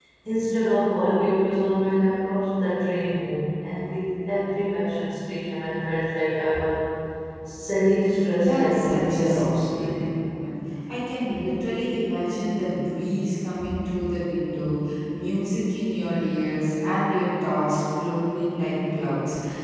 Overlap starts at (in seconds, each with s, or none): 8.1 s